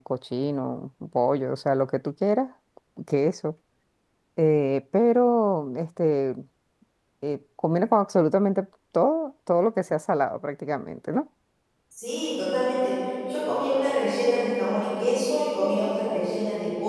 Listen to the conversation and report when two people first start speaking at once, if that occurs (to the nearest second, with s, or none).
none